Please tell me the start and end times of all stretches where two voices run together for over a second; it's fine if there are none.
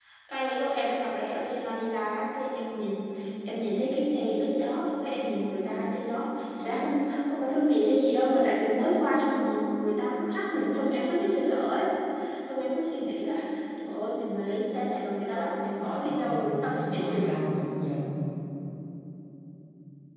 15.9-17.3

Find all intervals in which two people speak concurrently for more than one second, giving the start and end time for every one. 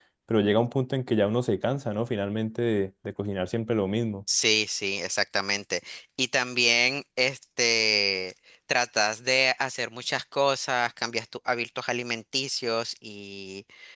none

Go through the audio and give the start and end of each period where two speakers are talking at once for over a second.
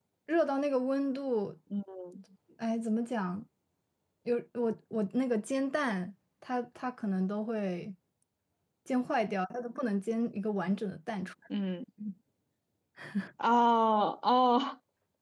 none

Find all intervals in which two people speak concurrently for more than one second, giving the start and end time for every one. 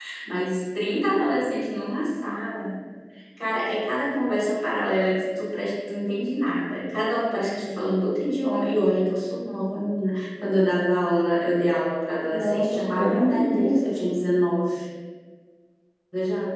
12.3-14.0

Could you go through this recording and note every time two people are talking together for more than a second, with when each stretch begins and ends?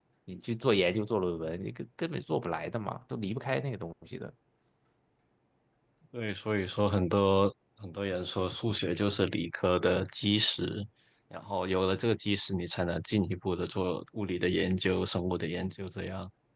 none

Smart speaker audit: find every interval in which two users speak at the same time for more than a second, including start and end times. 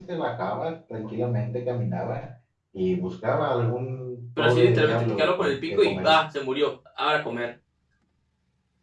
4.4-6.2

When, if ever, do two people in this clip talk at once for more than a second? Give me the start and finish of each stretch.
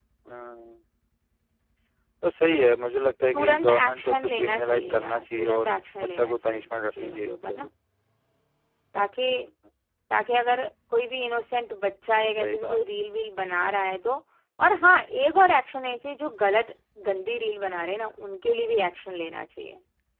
3.3-7.7

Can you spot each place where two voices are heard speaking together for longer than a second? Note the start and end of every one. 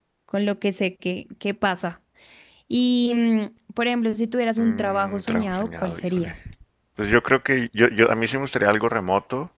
4.6-6.3

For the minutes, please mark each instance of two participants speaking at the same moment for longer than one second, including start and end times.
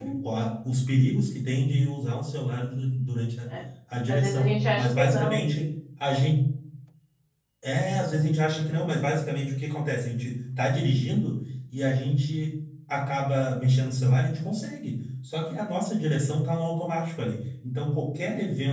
4.1-5.5

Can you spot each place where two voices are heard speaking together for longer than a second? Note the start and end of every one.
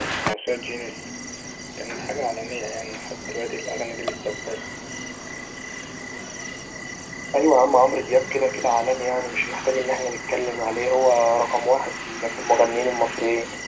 none

